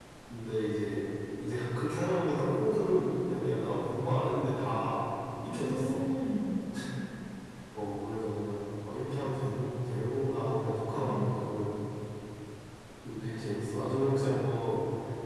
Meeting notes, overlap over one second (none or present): none